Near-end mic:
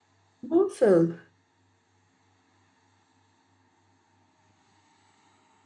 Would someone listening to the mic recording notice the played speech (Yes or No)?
No